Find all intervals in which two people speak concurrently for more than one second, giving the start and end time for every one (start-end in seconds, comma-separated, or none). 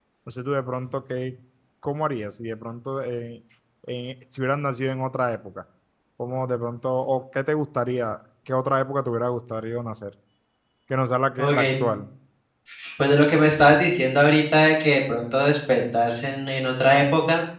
none